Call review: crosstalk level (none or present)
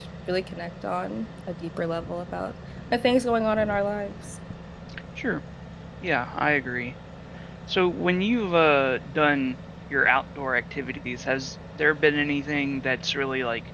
none